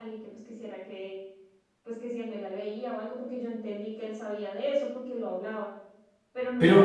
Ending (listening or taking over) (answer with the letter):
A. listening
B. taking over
B